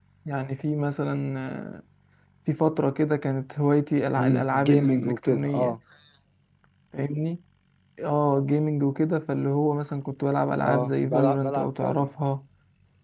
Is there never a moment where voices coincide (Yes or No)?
No